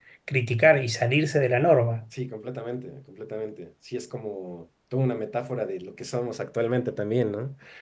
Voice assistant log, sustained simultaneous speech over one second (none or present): none